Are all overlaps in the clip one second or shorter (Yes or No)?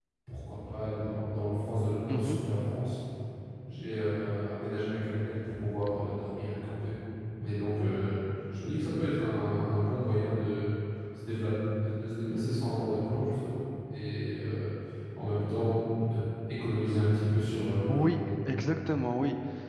Yes